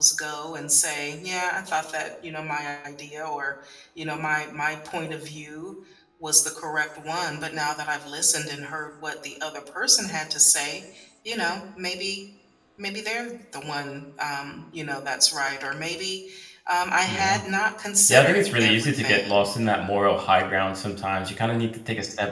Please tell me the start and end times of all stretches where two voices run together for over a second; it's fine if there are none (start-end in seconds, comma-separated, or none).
18.1-19.5